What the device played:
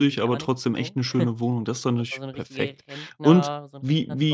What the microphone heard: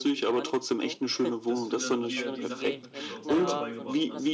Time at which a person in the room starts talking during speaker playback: 1.4 s

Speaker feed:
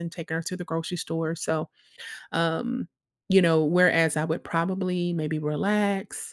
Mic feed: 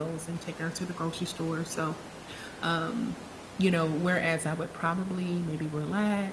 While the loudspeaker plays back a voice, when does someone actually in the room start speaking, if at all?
none

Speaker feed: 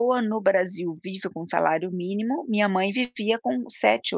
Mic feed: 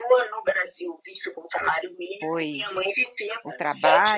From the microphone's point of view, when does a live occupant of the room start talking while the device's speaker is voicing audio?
2.2 s

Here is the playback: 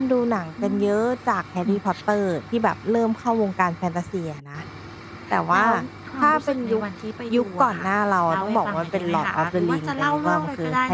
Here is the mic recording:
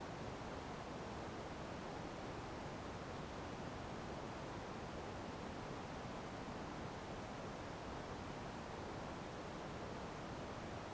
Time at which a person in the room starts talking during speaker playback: none

